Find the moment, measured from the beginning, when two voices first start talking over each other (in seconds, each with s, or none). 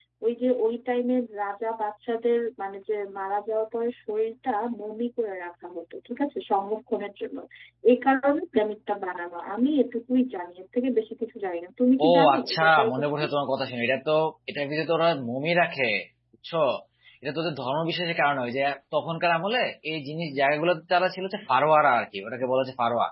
12.0 s